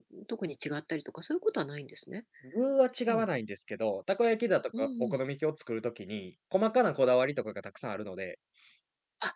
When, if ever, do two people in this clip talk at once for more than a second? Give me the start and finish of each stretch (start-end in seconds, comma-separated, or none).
none